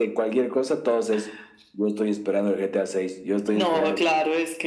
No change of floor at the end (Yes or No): No